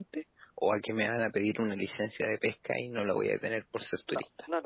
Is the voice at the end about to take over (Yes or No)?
Yes